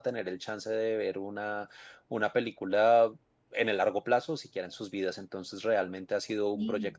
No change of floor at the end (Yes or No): Yes